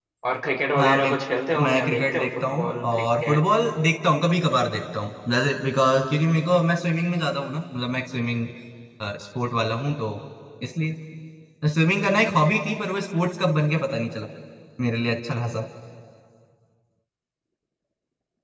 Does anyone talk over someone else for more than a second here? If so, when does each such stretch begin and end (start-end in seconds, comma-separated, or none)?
1.6-3.4